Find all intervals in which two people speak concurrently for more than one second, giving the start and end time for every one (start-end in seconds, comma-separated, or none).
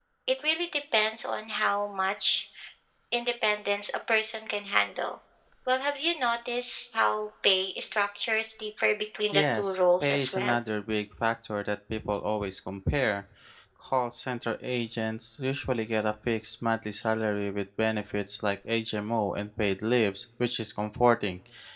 9.3-10.6